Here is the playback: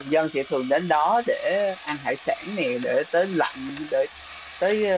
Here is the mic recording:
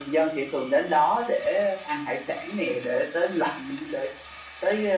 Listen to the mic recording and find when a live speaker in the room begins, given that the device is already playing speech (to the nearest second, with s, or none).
none